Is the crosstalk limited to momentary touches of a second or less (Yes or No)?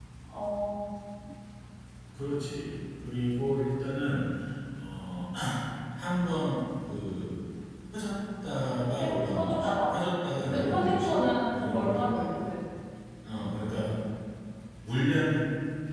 No